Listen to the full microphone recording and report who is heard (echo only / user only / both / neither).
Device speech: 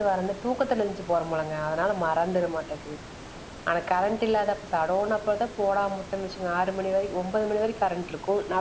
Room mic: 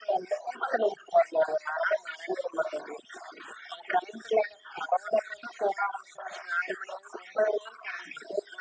echo only